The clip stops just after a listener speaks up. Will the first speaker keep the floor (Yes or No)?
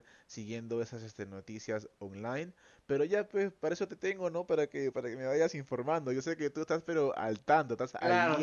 No